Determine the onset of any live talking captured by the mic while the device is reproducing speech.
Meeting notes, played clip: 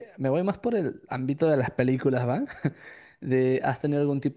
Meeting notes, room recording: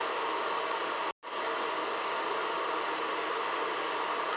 none

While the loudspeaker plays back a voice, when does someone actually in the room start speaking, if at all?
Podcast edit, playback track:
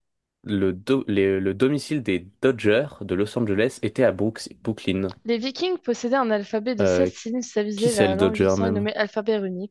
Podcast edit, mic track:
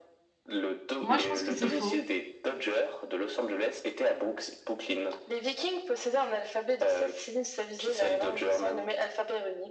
1.0 s

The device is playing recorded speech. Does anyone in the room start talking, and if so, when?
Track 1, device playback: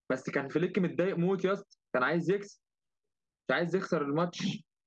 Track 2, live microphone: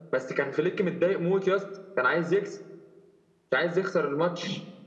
none

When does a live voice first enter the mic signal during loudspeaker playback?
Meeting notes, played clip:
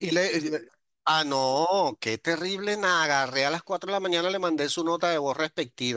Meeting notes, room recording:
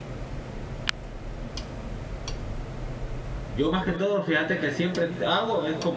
3.5 s

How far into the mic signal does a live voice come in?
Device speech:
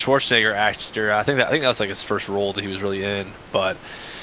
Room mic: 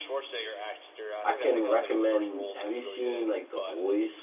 1.2 s

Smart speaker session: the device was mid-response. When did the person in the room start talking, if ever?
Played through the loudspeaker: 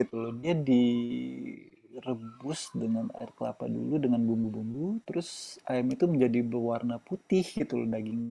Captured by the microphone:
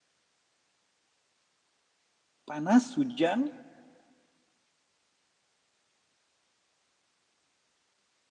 2.5 s

